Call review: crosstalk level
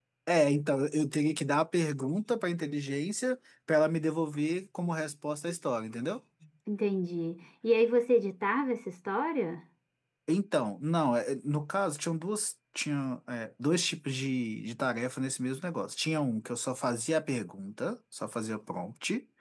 none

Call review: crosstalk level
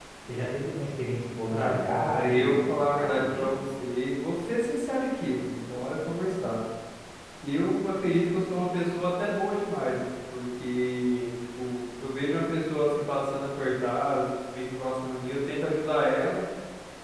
present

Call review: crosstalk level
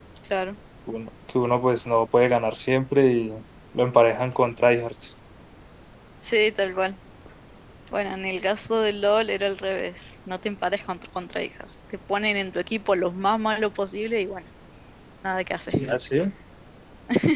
none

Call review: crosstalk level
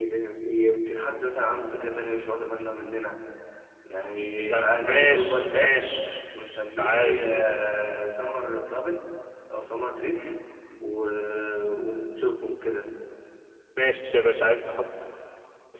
present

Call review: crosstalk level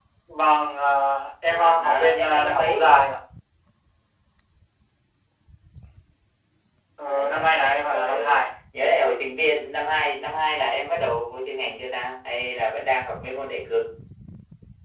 present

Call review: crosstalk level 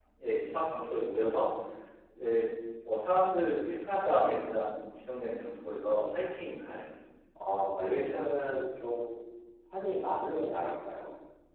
none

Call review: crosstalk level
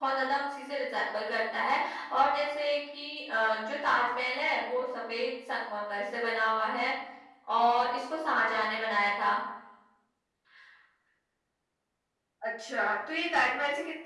none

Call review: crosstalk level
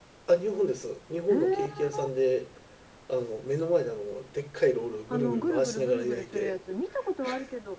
present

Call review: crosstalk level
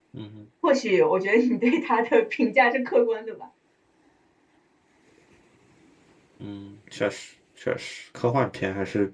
none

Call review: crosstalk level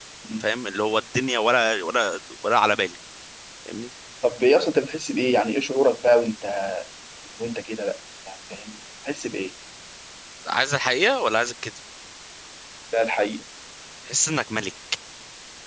none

